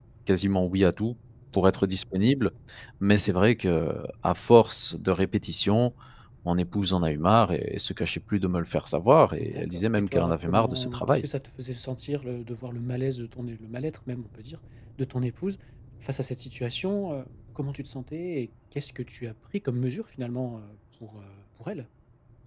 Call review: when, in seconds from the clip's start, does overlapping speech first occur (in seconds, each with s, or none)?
9.4 s